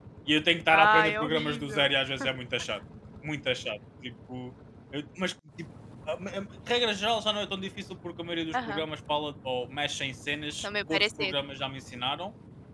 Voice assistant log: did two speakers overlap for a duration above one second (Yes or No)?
Yes